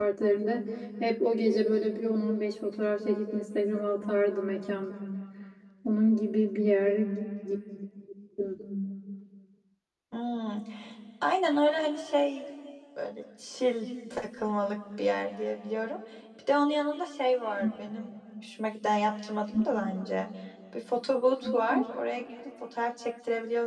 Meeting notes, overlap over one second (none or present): none